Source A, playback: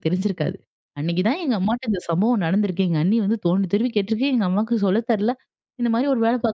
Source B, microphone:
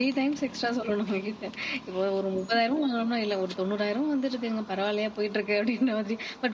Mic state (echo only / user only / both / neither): user only